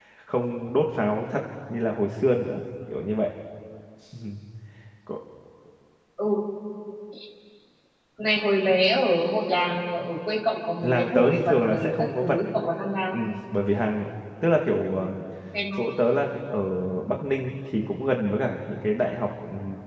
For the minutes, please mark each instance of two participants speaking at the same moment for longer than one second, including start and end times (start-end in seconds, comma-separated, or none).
10.8-12.4